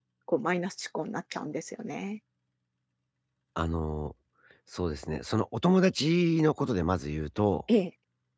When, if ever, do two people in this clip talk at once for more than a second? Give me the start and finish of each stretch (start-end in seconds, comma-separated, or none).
none